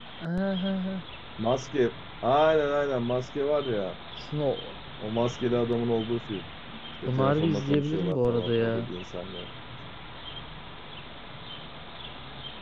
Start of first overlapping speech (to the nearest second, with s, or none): 7 s